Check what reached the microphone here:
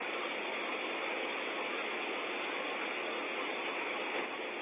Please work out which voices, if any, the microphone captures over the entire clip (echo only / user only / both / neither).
neither